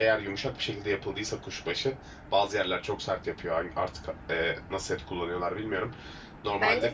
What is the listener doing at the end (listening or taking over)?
listening